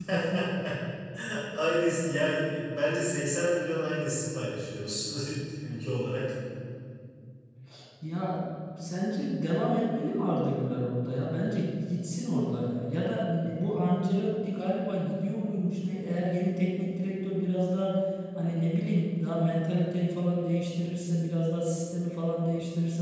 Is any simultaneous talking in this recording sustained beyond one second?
No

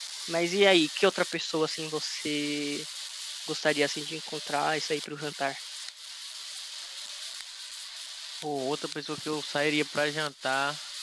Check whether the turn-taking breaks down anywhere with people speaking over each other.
No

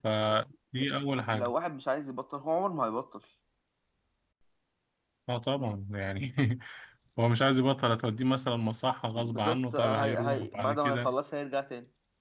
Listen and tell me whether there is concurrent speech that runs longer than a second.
Yes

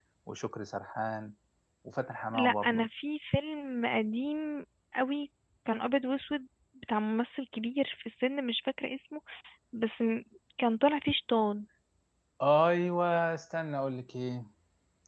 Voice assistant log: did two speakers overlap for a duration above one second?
No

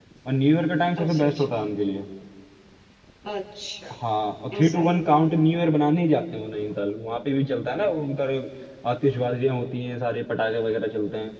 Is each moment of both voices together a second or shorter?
Yes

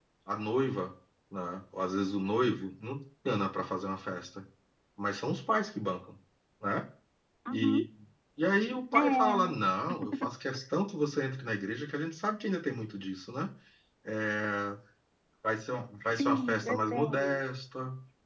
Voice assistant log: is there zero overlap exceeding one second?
No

